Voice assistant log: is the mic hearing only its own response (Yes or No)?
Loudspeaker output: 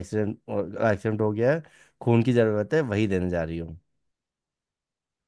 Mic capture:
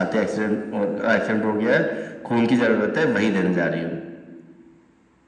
Yes